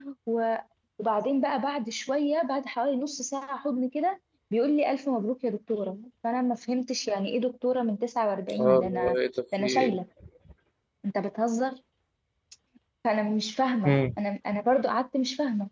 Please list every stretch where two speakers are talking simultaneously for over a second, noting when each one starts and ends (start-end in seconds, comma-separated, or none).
none